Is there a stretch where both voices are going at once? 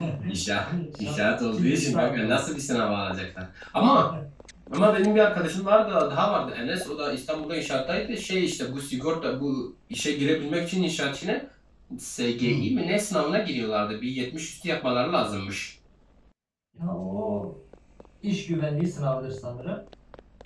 Yes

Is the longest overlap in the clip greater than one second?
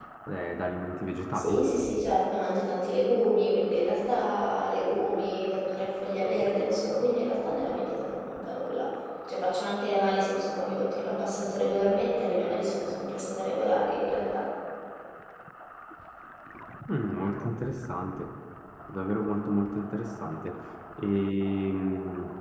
No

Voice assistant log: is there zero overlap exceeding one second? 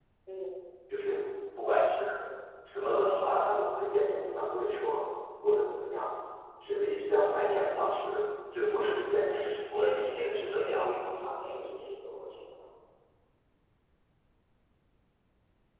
No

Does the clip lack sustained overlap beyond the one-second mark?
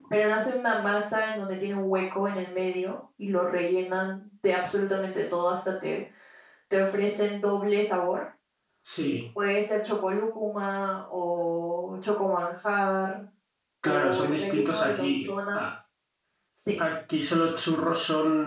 No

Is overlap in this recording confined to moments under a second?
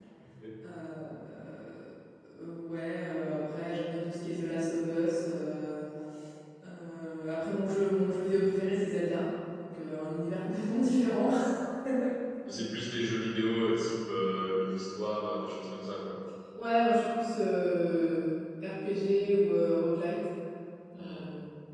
Yes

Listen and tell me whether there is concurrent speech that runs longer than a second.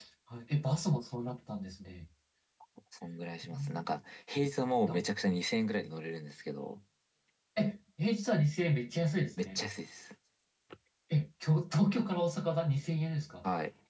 No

